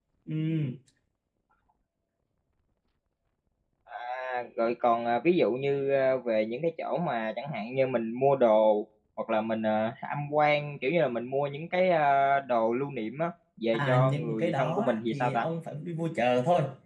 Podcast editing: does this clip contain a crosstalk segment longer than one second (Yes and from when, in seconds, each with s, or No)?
Yes, from 13.7 s